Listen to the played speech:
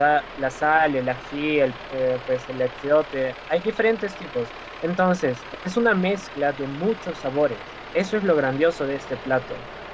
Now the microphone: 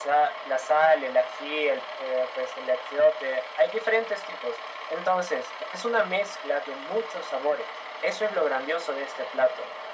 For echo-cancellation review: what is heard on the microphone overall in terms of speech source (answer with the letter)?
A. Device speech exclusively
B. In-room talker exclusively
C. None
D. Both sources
A